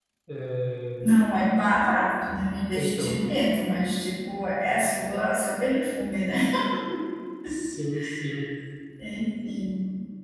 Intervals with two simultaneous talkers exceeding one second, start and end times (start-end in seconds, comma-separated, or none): none